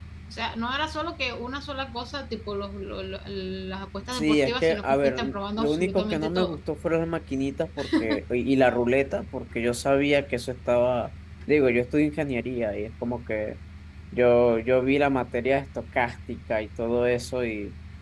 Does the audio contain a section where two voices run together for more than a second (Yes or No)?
Yes